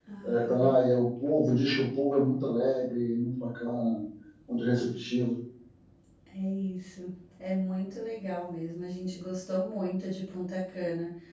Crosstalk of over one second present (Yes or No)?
No